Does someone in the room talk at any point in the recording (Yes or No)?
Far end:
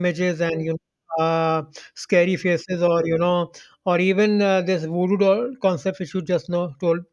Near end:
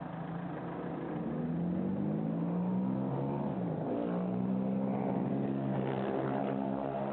No